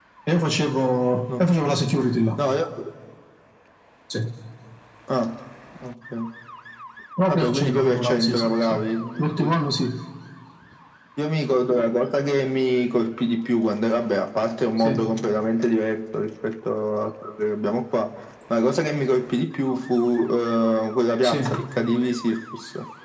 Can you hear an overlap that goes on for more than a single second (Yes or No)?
Yes